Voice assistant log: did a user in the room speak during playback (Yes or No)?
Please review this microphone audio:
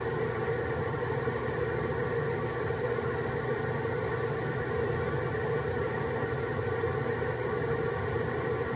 No